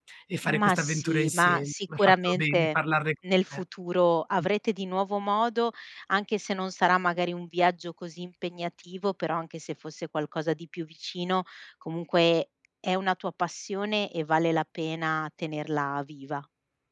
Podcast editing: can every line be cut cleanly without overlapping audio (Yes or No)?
No